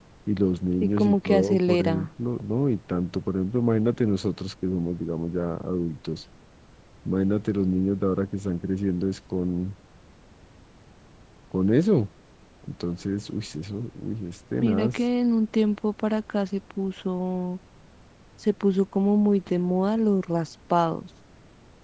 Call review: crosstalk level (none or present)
present